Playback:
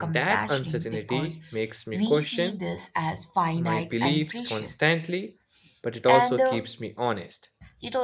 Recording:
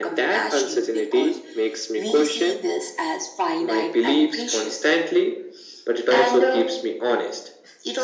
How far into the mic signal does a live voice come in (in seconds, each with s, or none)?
none